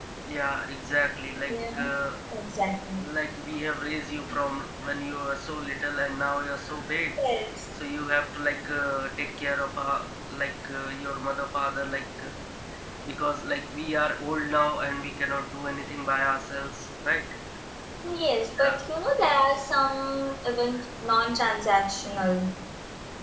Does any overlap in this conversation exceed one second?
No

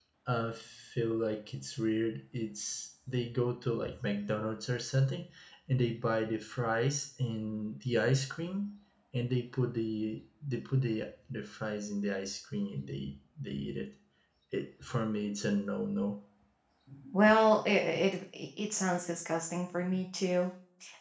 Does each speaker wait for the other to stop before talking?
Yes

